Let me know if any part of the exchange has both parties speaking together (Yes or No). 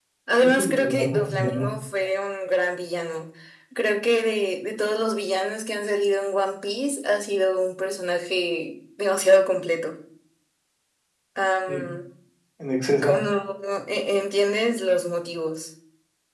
Yes